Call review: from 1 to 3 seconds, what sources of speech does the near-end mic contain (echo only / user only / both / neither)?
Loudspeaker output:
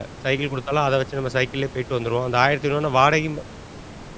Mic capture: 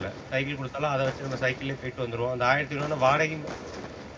echo only